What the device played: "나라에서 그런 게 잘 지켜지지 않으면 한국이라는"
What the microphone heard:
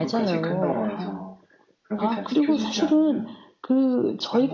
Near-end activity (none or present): present